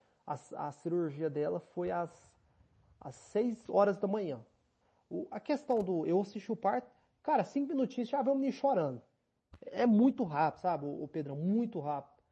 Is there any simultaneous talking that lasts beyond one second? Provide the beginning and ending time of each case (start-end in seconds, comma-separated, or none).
none